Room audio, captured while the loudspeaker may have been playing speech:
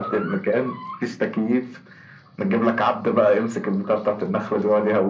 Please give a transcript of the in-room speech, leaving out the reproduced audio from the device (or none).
none